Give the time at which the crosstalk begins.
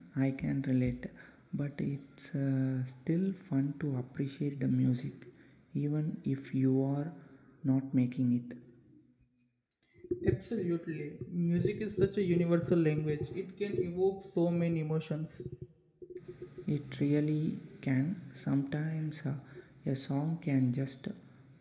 none

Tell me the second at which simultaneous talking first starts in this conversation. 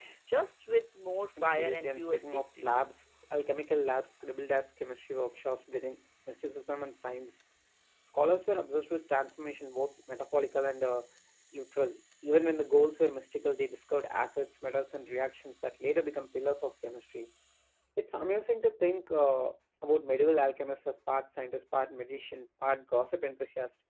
1.4 s

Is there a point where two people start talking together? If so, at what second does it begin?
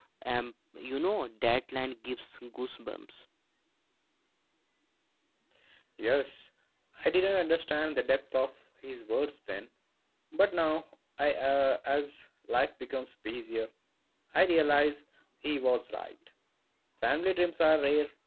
none

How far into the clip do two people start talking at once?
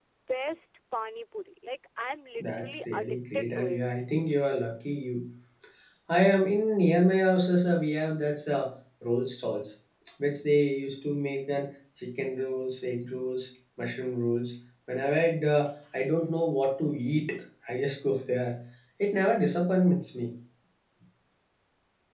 2.4 s

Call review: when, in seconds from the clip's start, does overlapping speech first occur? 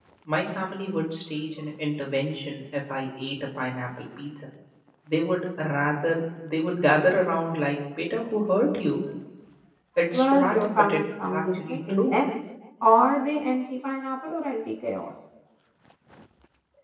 10.1 s

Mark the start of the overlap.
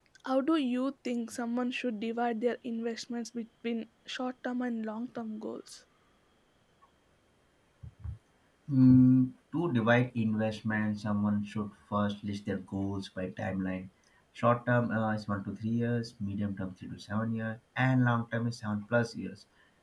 none

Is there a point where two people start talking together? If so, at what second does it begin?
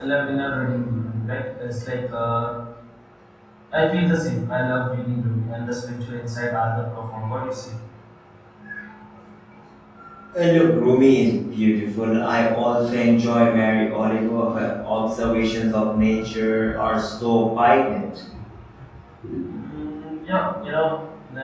none

